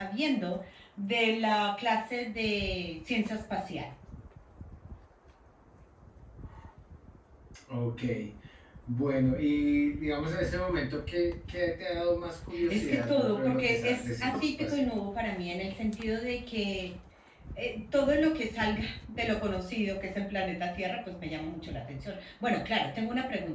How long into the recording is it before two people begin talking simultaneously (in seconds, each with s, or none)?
12.5 s